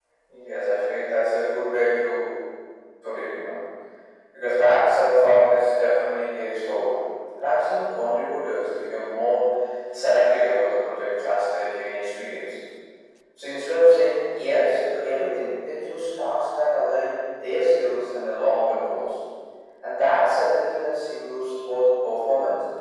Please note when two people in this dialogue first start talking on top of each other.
none

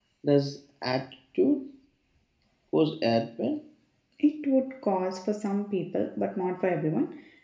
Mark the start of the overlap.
none

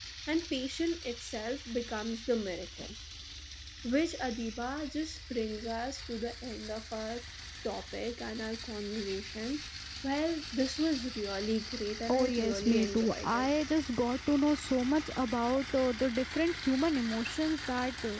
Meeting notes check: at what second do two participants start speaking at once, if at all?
12.1 s

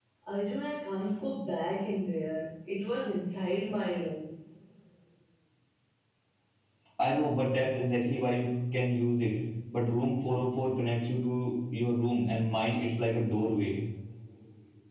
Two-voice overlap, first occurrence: none

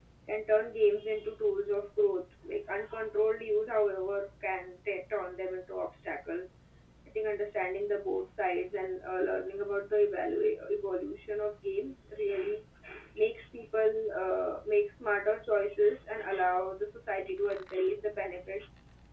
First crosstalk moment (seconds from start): none

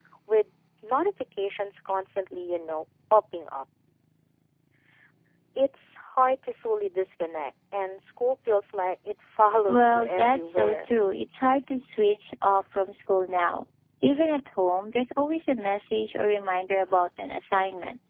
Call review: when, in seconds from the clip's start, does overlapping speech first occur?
9.7 s

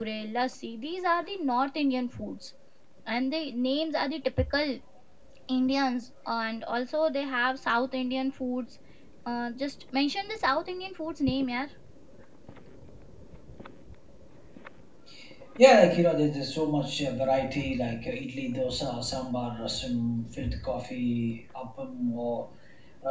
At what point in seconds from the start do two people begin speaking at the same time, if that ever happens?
none

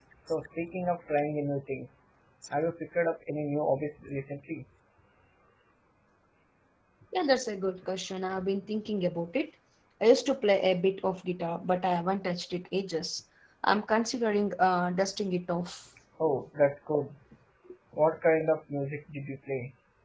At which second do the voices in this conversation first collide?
none

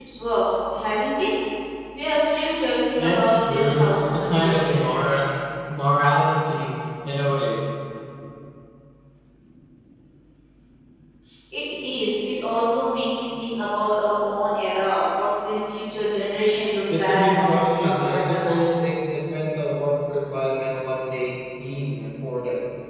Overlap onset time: 3.0 s

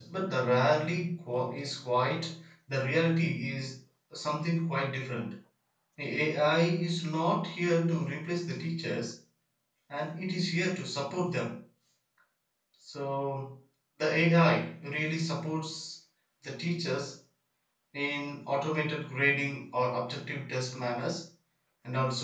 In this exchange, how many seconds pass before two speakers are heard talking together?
none

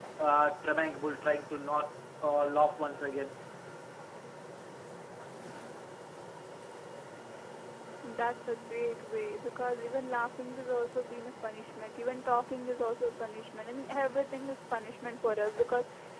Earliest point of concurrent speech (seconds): none

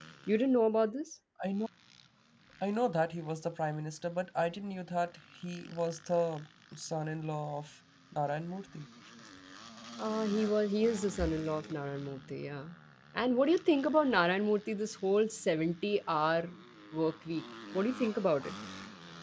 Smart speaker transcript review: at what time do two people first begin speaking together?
none

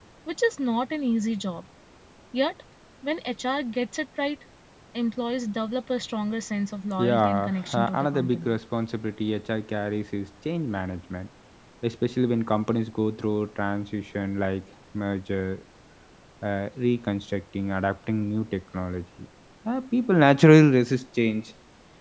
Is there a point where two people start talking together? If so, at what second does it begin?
7.0 s

